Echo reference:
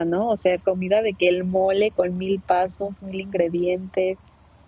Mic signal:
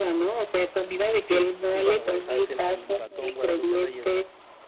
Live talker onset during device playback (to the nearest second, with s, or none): 1 s